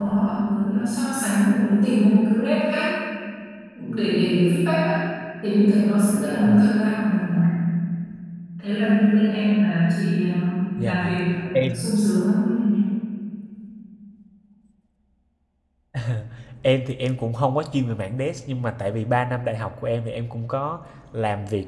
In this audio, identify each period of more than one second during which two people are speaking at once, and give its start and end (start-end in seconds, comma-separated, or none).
none